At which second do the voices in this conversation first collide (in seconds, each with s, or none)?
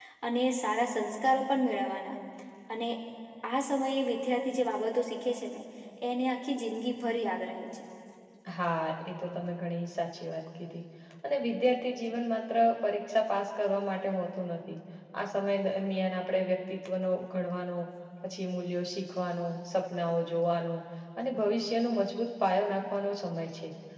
none